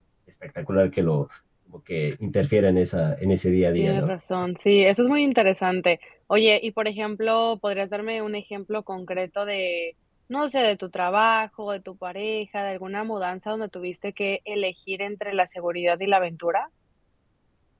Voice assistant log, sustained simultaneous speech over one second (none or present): none